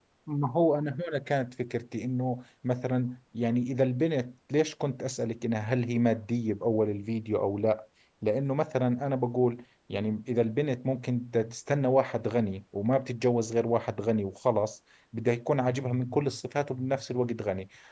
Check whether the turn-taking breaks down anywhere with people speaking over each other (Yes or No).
No